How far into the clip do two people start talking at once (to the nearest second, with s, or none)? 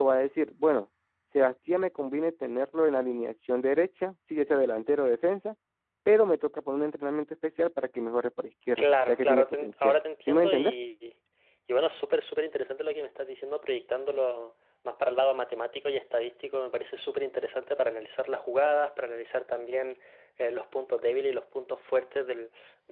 9 s